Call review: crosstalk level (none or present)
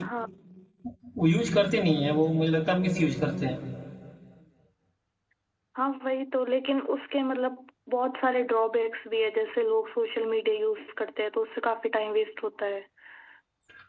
none